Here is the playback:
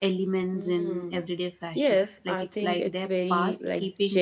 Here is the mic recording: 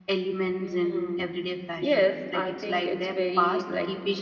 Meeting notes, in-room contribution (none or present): none